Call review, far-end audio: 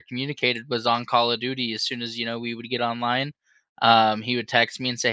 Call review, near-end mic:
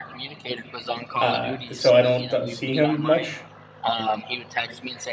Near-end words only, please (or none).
uh, so I don't, uh, see him much,